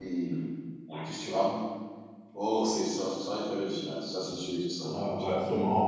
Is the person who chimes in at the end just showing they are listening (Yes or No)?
No